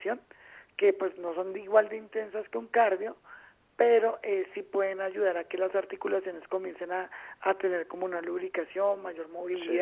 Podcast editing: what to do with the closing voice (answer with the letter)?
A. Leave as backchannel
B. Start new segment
A